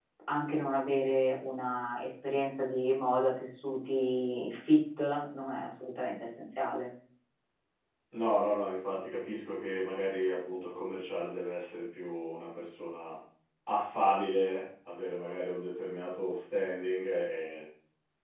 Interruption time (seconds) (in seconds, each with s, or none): none